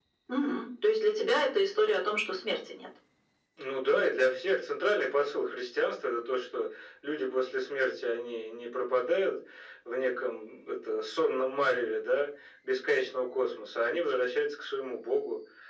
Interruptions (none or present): none